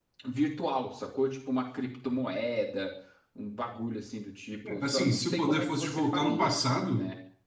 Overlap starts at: 5 s

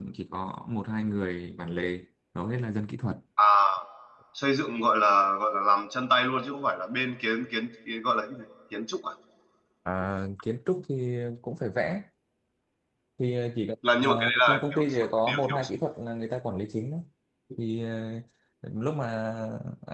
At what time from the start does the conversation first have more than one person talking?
14 s

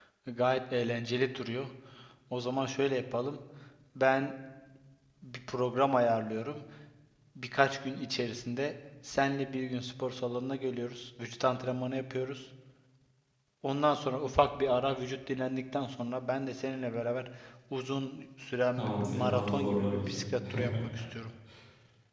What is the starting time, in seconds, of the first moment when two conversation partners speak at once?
19 s

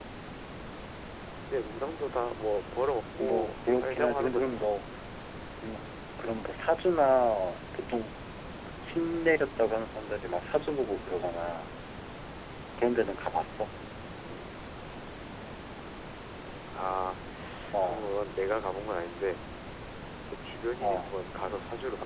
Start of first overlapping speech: 3 s

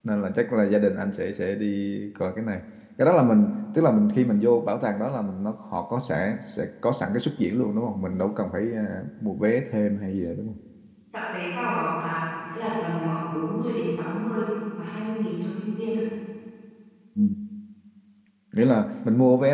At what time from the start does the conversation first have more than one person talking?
none

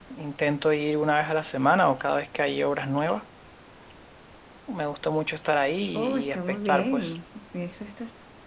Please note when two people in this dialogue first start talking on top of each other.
6 s

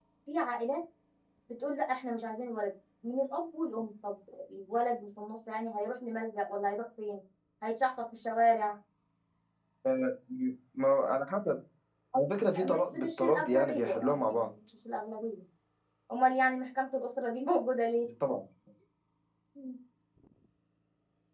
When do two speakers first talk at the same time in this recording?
13 s

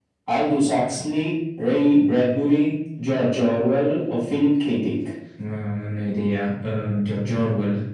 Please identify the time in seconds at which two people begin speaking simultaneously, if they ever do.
none

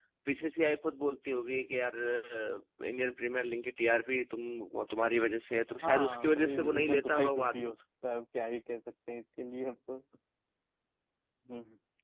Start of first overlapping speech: 6 s

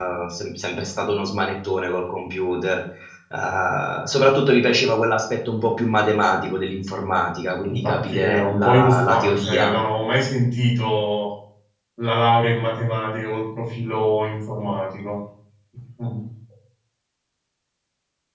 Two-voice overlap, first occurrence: 8 s

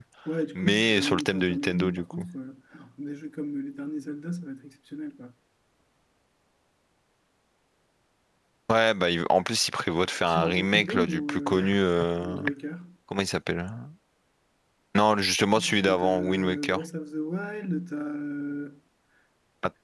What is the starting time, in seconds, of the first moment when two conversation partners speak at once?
1 s

